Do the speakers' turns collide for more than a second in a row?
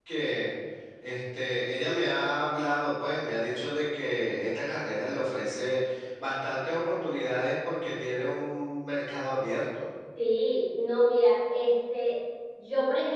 No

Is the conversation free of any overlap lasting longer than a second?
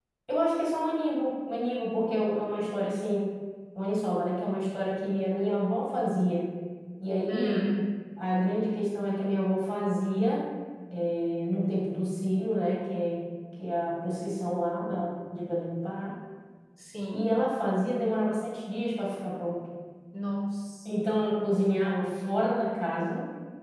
Yes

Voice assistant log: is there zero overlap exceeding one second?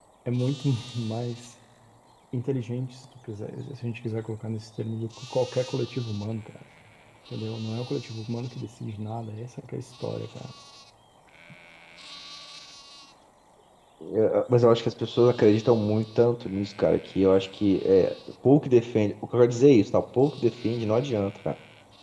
Yes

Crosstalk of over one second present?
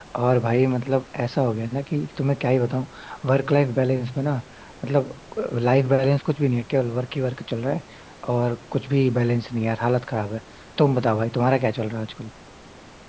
No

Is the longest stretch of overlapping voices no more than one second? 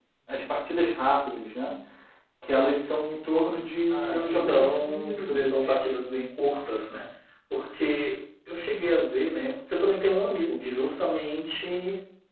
No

